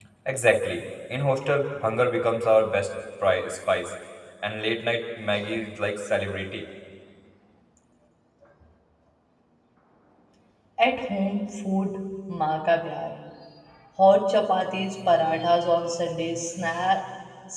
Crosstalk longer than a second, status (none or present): none